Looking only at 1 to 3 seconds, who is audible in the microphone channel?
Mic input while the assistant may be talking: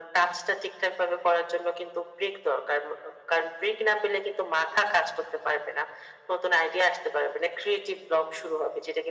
echo only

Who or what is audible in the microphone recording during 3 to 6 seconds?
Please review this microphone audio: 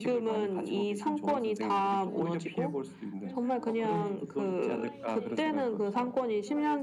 both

